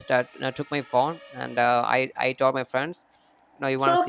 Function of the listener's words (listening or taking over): taking over